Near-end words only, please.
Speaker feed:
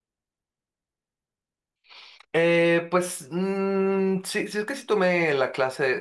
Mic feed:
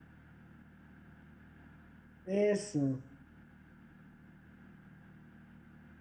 eso,

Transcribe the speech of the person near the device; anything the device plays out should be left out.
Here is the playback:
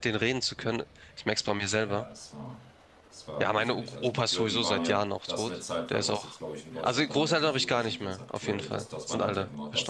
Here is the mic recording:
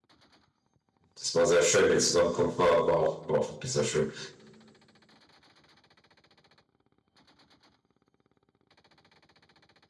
das war sehr schön. Die Zusammenkunft war, war auch, war auch wirklich sehr schön.

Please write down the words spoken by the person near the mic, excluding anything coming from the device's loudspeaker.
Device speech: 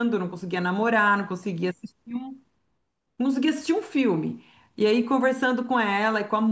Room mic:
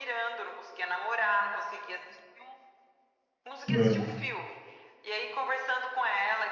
É.

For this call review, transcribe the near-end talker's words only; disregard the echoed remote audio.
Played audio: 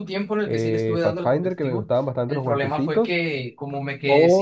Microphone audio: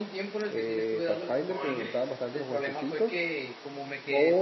Oh, increíble.

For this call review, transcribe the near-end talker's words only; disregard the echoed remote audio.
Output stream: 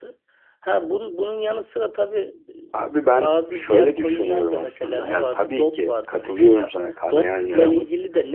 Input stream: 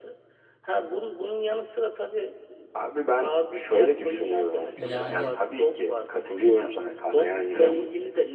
Yani

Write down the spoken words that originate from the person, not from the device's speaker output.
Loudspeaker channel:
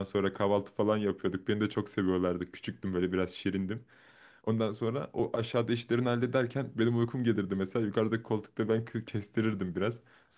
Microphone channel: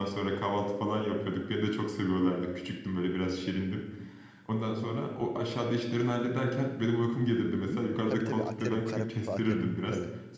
Hı? Tabii tabii Aterim, kara kutu atarım tabii.

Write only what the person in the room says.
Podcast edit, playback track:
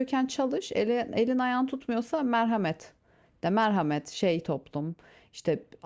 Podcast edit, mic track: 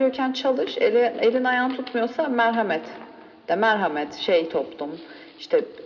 none

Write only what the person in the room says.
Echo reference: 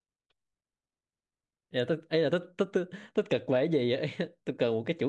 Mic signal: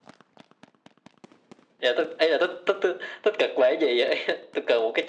none

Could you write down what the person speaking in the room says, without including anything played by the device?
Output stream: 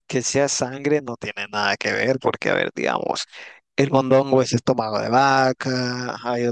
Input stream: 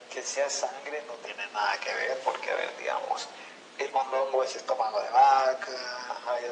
none

